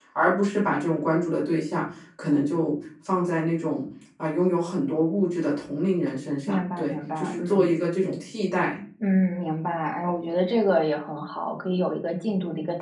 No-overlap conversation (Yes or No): No